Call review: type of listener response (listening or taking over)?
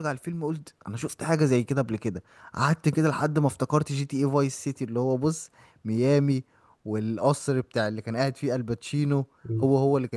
taking over